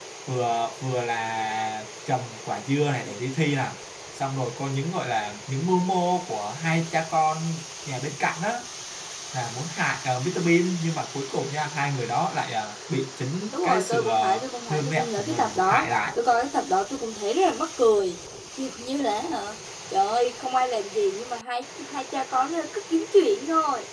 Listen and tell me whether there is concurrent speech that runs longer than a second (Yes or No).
Yes